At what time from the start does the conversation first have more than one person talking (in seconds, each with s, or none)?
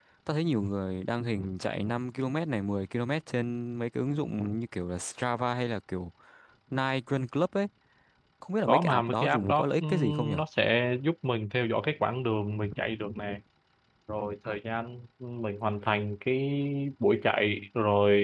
8.7 s